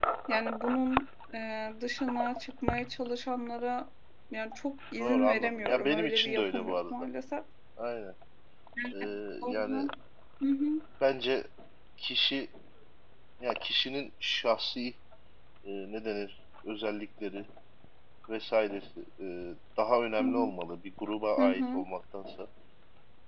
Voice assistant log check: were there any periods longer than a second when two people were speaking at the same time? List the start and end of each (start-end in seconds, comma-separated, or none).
5.0-6.9